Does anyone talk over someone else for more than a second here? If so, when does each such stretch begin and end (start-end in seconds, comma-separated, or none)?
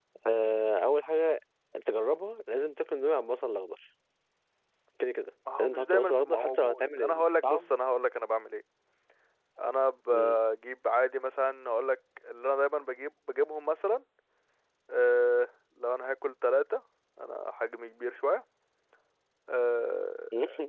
5.6-7.7